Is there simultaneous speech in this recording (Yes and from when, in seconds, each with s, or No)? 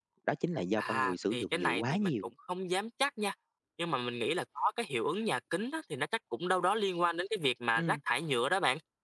Yes, from 0.8 s